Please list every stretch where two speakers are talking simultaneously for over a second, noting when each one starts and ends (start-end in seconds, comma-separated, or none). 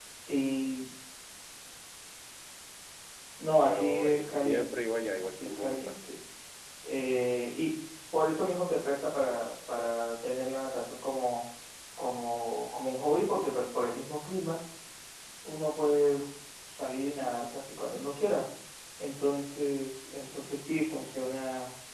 3.6-6.0